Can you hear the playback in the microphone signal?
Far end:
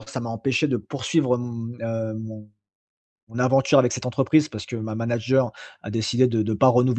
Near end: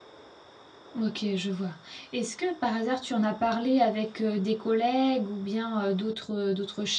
No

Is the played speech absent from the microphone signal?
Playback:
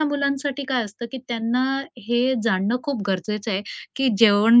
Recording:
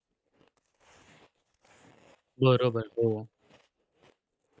Yes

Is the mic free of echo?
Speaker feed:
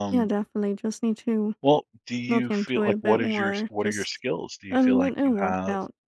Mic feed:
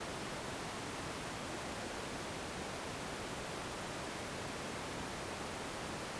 Yes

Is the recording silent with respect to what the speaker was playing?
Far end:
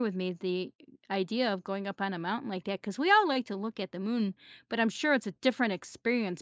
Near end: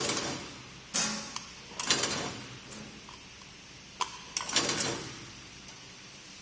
Yes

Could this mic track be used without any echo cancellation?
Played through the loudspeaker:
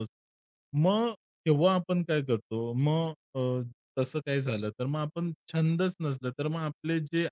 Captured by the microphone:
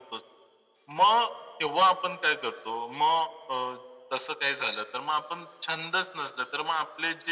No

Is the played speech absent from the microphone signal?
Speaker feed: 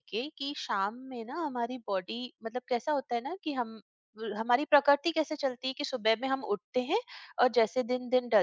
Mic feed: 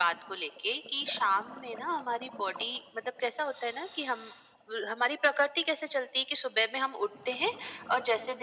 No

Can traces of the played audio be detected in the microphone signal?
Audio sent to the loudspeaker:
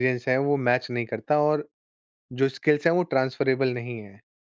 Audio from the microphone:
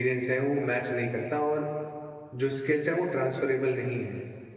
Yes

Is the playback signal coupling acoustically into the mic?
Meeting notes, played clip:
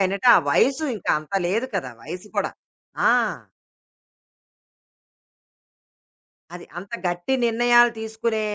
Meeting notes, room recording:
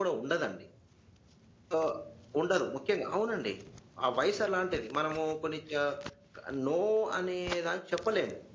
No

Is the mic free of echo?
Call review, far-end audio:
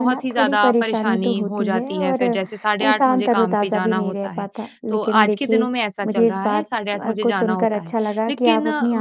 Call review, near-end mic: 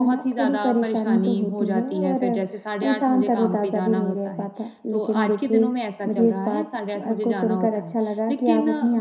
No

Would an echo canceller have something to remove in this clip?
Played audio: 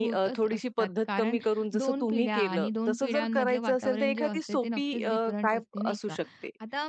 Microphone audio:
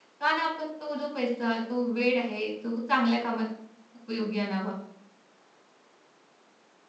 No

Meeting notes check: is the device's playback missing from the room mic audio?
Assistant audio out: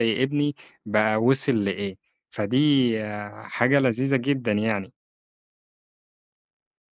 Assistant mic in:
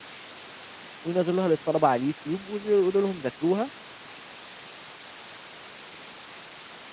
Yes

